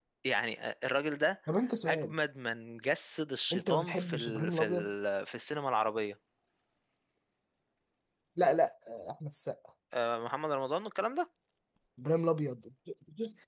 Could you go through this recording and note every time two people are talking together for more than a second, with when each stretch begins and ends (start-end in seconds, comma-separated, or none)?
3.5-4.9